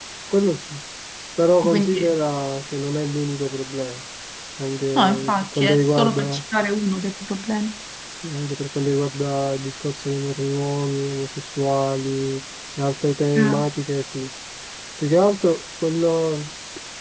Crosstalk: present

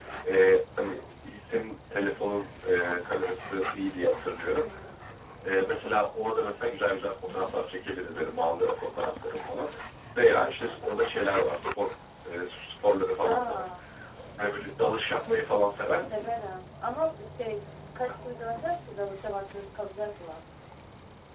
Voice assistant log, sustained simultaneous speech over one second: none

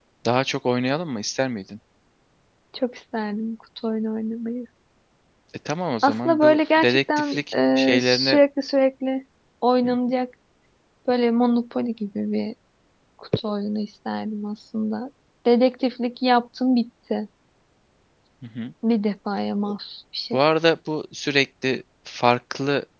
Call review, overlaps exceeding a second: present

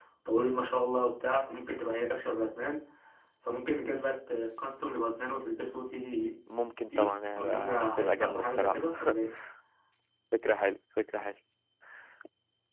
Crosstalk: present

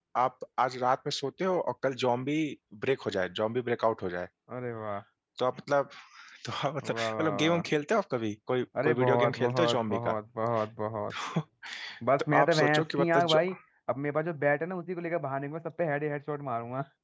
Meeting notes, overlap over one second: present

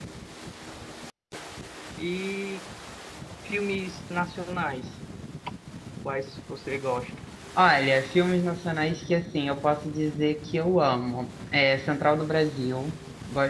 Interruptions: none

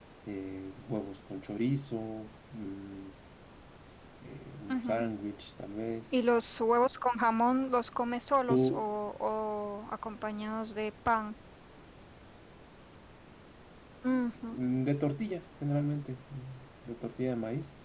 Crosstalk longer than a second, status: none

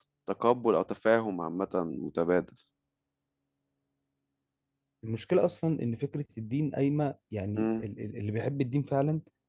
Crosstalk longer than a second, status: none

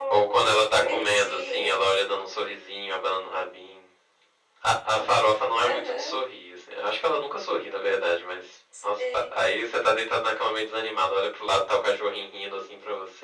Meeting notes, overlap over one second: present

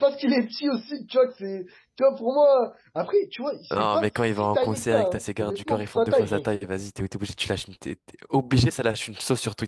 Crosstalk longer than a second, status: present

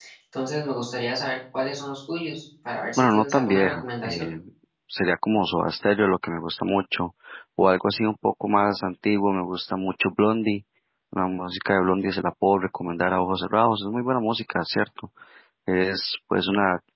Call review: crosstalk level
present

